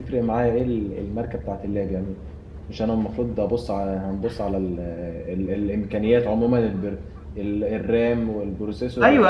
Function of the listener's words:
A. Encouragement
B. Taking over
B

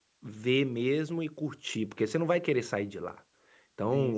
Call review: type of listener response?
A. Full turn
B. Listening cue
B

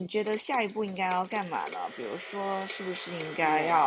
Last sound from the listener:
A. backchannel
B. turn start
A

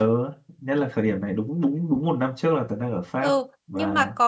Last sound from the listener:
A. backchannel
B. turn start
B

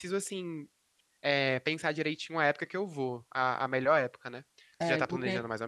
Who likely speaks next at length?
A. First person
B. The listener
B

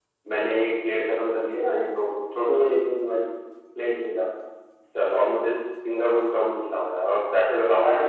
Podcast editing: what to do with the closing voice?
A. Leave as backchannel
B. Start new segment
B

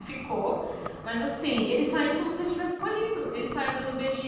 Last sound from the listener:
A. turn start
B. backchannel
B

